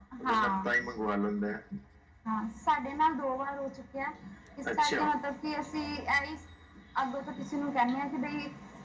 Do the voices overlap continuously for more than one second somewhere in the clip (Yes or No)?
No